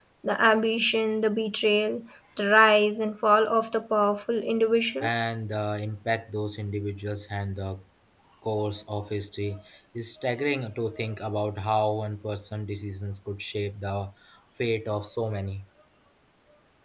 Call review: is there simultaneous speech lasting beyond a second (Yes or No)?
No